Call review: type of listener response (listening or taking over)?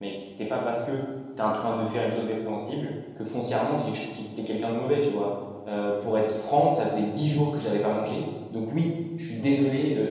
listening